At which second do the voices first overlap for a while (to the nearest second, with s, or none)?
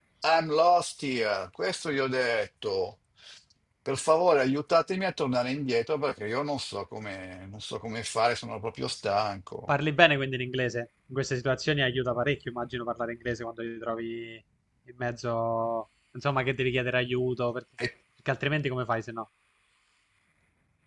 none